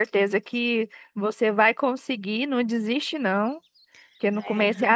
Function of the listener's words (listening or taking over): listening